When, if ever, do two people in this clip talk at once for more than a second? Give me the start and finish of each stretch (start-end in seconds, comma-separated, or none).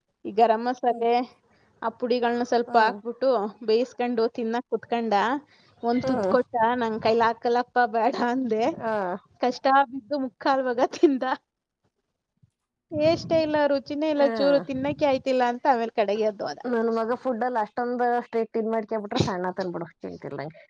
none